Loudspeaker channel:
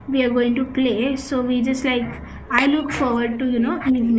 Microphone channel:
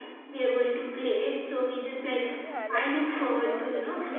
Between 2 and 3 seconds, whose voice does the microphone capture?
both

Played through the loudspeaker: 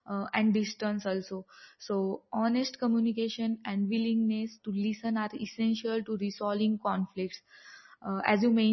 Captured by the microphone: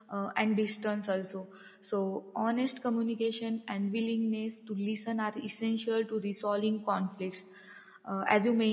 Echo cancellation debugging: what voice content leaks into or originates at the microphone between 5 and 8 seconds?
echo only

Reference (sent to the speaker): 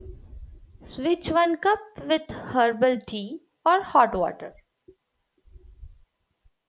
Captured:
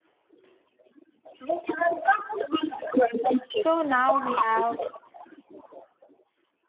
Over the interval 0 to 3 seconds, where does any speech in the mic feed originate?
echo only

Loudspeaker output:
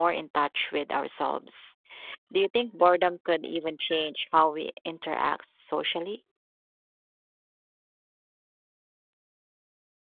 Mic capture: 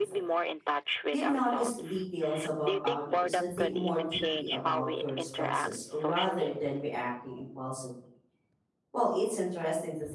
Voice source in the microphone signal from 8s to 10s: user only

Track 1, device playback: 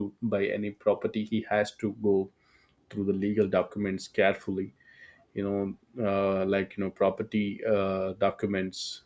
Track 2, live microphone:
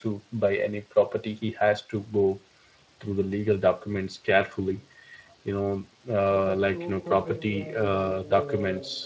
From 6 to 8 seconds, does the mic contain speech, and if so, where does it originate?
both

